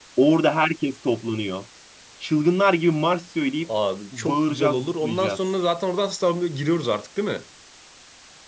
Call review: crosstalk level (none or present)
present